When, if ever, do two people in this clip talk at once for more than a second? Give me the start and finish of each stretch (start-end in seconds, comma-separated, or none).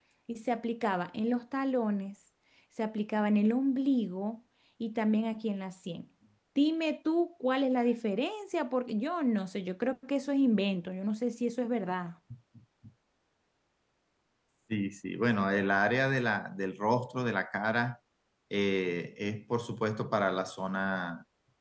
none